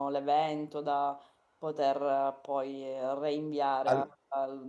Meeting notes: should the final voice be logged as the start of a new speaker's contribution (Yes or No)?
No